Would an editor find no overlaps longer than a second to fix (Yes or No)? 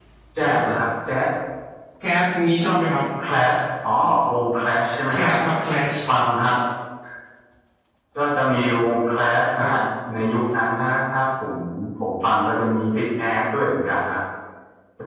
Yes